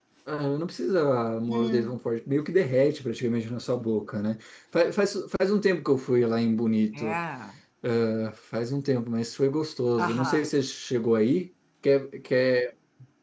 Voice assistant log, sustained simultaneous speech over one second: none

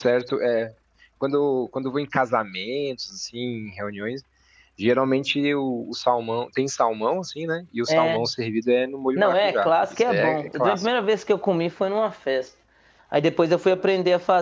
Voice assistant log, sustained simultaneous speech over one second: present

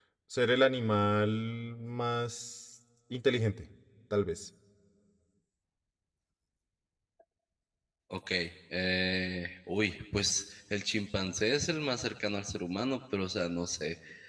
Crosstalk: none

